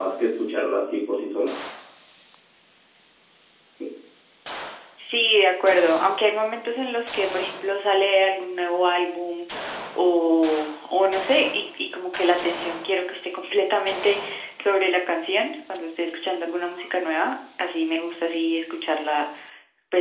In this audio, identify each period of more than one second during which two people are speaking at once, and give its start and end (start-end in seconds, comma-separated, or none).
none